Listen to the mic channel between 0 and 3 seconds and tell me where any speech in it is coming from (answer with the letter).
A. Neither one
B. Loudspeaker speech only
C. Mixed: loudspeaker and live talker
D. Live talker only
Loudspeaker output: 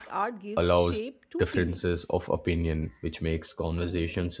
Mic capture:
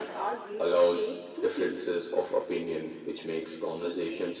B